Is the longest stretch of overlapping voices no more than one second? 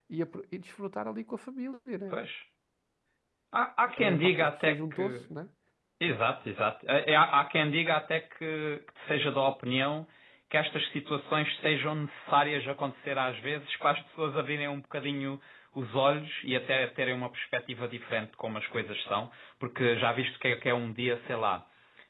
No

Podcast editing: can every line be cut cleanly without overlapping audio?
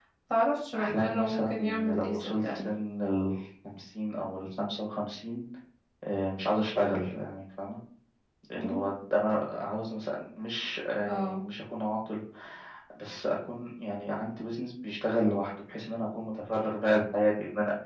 No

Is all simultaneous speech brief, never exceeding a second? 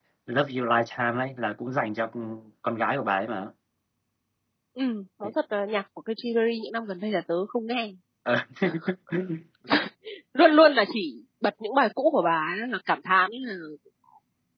Yes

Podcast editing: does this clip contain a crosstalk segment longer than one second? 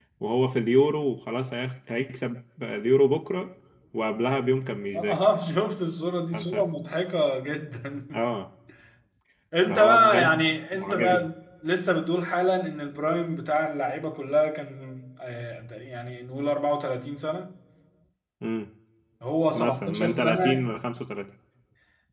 Yes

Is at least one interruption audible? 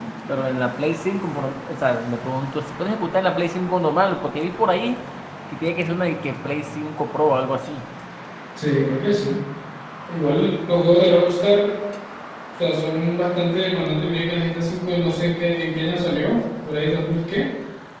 No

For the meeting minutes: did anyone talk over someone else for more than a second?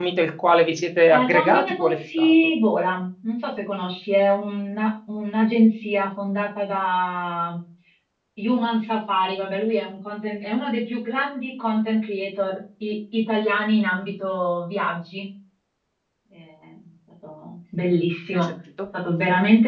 Yes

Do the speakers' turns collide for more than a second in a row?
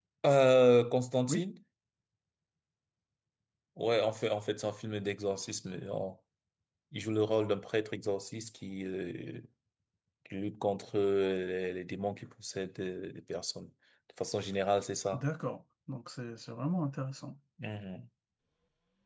No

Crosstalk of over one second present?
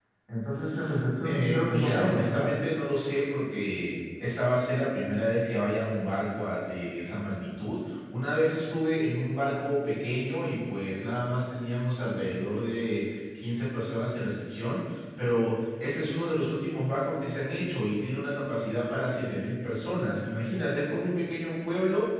Yes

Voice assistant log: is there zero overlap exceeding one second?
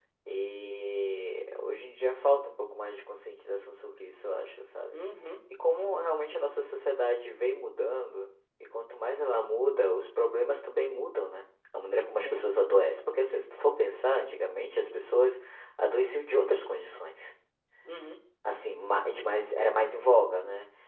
Yes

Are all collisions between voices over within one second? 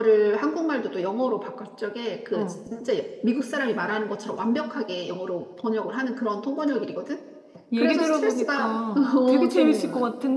No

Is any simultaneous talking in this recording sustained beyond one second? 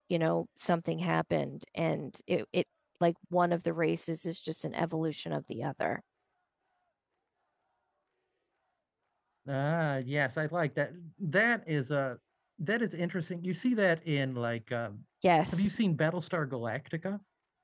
No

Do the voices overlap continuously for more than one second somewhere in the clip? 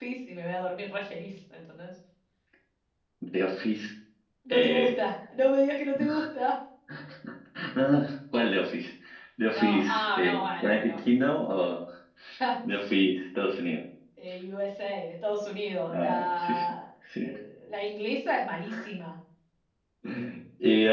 Yes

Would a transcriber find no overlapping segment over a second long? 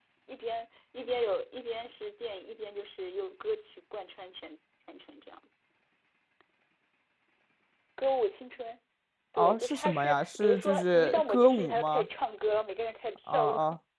No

